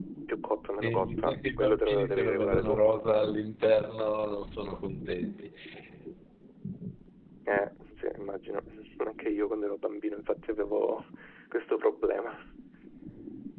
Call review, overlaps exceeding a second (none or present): present